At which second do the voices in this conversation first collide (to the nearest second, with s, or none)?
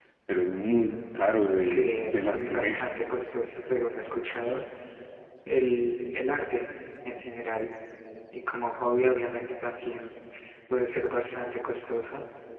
2 s